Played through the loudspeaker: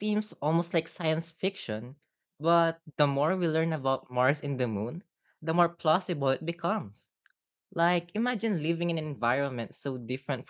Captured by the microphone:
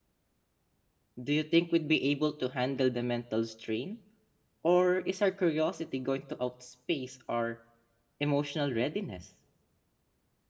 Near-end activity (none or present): present